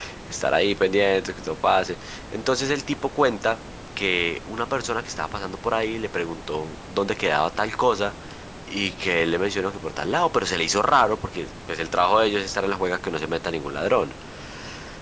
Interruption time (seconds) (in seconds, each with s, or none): none